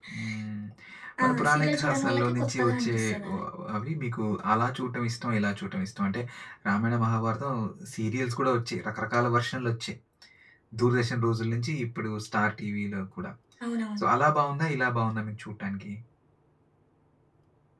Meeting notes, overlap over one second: present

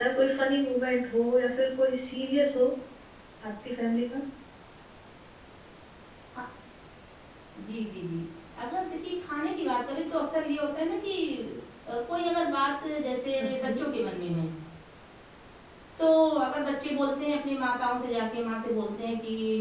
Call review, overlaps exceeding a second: none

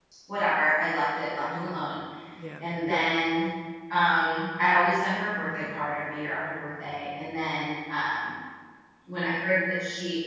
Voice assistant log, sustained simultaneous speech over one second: none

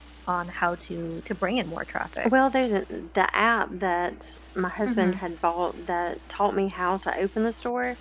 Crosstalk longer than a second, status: none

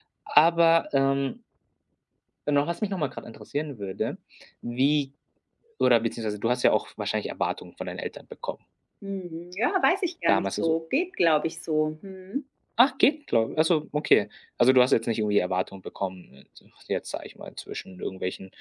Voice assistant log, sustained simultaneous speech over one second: none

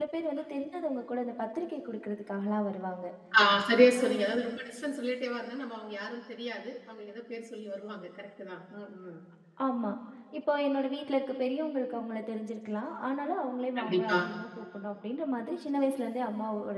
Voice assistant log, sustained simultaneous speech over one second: none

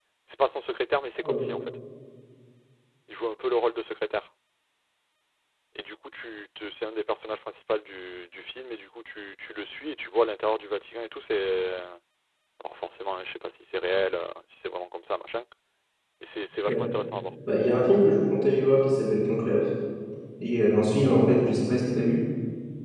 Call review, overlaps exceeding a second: none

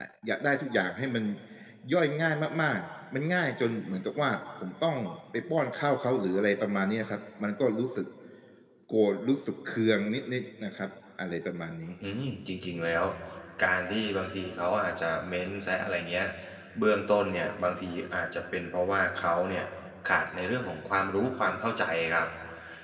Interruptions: none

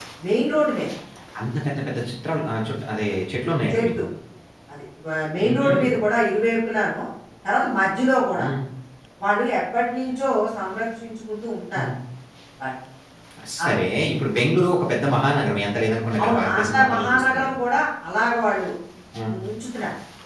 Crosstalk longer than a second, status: present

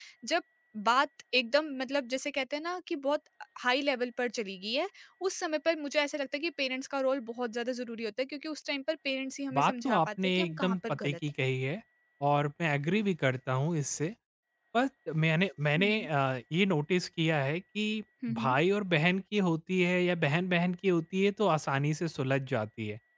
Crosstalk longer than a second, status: present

